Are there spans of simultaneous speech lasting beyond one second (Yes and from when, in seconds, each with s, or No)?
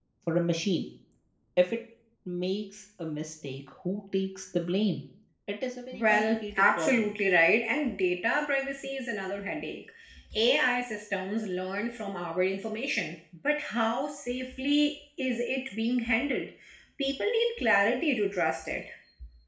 Yes, from 5.9 s